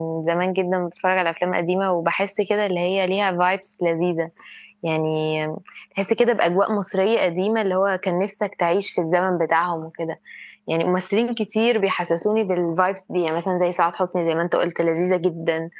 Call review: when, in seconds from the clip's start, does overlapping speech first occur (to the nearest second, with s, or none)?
none